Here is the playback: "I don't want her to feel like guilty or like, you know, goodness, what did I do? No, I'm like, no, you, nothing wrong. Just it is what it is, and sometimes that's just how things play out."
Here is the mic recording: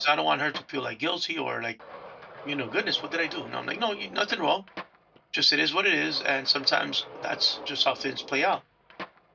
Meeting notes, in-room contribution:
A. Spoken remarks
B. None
B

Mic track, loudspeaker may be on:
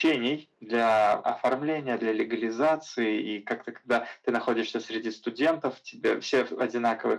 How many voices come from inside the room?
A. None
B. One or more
A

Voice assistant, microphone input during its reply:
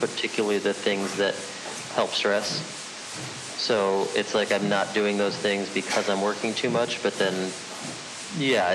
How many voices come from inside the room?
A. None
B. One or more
A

